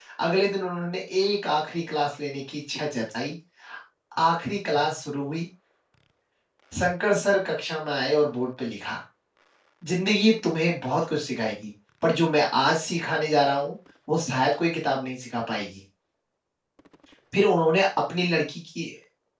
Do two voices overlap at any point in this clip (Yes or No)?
No